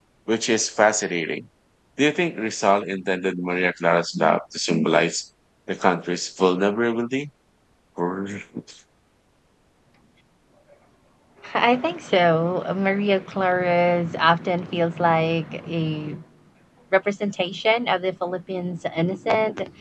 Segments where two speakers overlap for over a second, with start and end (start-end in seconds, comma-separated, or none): none